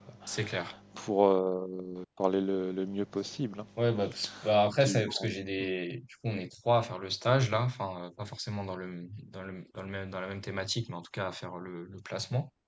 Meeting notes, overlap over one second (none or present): none